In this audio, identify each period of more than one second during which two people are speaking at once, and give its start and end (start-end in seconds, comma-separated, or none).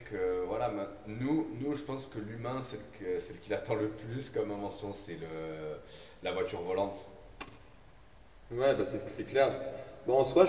none